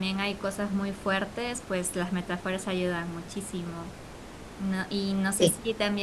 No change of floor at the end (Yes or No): Yes